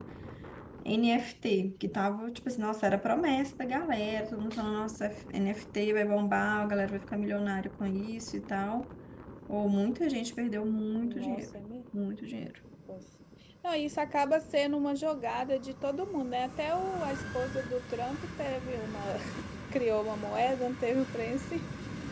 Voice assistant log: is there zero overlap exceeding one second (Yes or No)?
Yes